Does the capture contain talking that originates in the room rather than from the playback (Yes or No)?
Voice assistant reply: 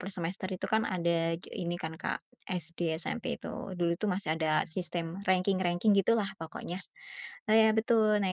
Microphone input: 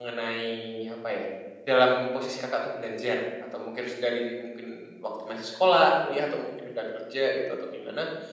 Yes